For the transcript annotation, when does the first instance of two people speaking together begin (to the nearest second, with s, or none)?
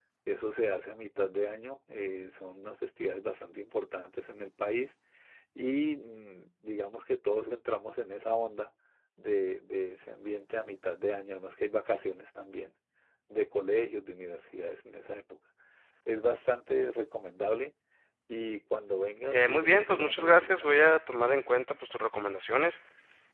19 s